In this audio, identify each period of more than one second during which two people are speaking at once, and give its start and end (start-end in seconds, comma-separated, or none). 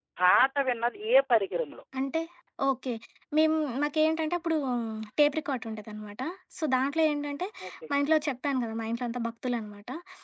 none